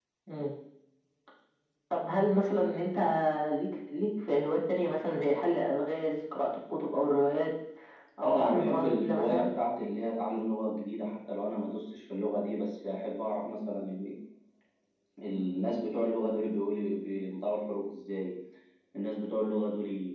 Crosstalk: present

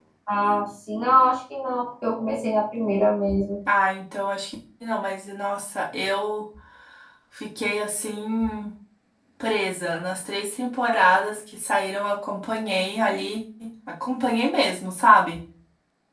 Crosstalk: none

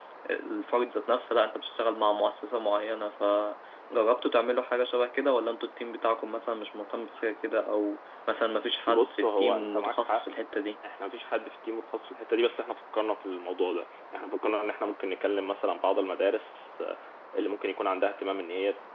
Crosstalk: present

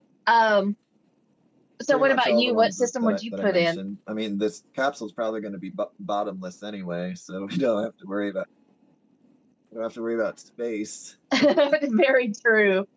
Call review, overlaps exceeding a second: present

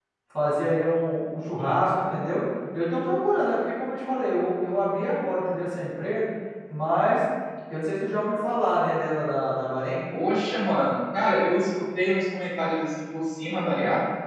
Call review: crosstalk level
none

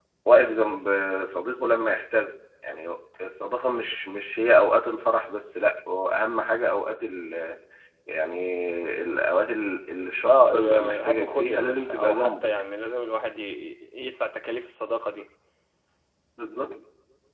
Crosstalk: present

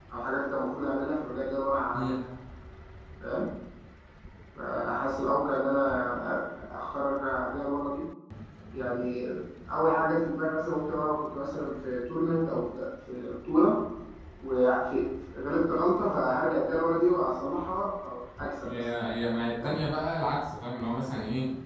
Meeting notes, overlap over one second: none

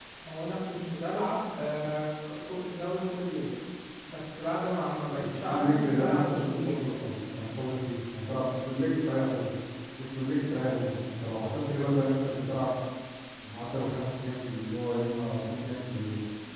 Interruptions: present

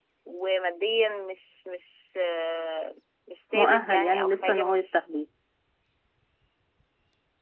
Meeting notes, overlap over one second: present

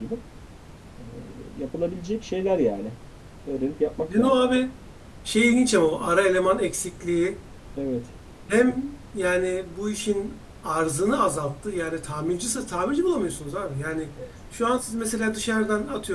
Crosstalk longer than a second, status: none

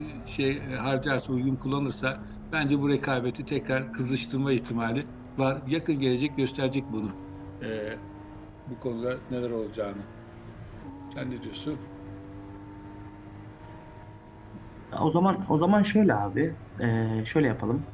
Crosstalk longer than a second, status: none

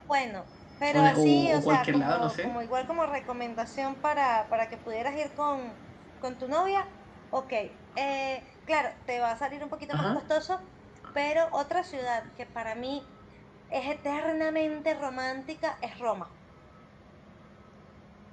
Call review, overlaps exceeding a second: present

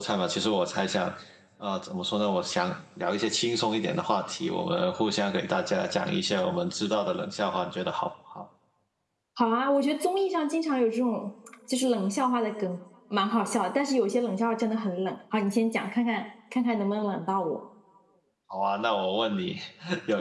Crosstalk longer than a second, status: none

